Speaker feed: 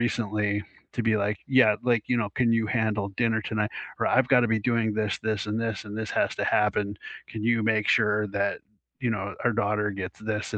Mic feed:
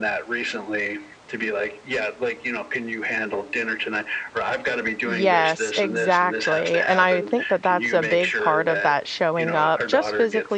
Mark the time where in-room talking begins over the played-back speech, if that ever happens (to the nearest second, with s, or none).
5 s